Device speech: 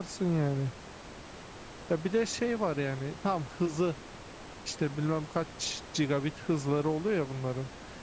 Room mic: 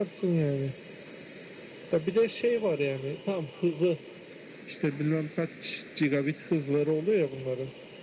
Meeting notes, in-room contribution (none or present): none